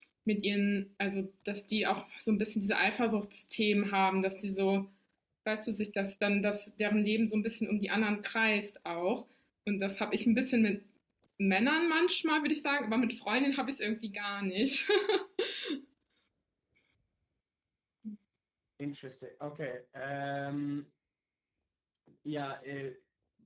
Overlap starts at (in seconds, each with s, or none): none